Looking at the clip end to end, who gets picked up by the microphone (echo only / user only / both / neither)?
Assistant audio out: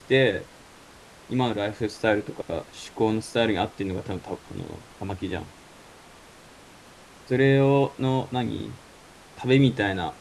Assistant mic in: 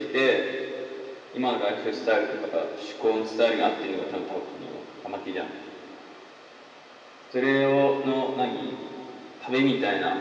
echo only